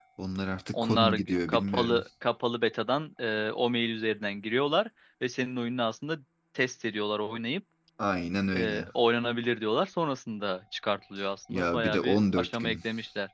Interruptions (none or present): present